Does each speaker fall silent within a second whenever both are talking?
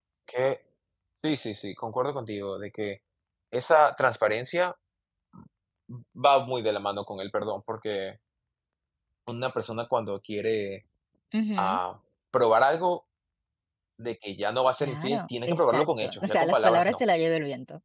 No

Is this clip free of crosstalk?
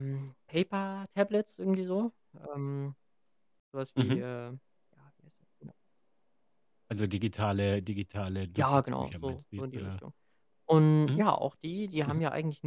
No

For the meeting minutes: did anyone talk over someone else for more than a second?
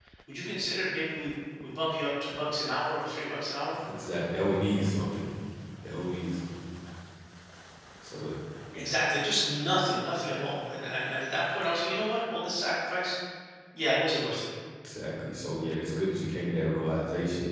No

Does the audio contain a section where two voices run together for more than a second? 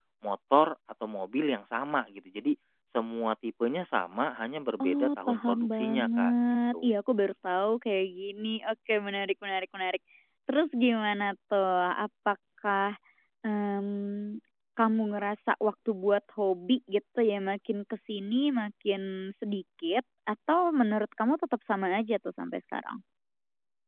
Yes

